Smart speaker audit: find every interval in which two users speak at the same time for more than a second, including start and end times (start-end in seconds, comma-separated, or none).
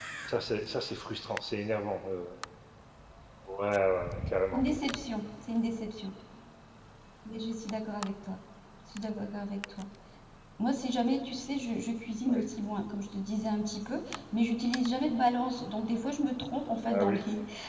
none